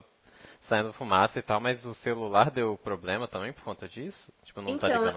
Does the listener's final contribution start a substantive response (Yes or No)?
Yes